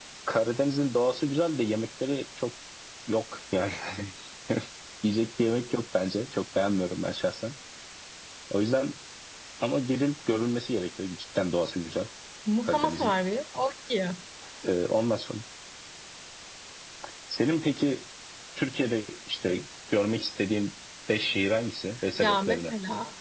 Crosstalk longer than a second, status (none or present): none